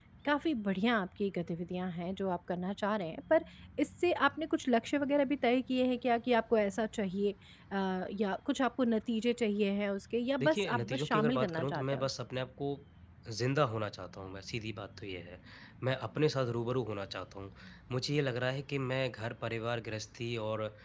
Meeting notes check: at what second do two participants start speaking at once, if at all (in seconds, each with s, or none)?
10.4 s